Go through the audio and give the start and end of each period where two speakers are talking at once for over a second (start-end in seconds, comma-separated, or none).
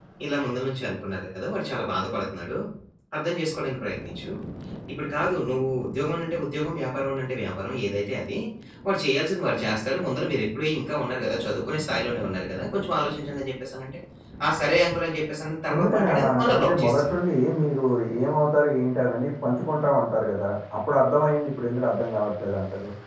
15.7-17.2